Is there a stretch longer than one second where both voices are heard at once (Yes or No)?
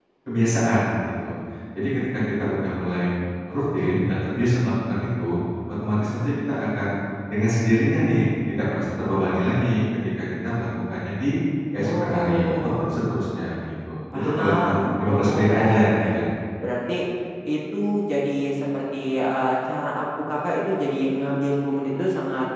Yes